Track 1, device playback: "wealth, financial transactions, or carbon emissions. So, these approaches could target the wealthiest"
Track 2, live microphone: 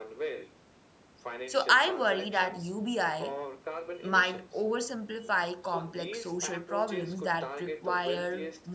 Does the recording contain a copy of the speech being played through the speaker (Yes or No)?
Yes